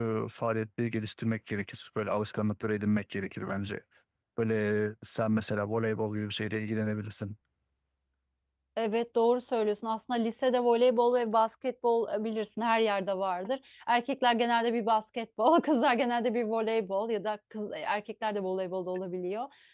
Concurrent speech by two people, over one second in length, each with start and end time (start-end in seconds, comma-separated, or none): none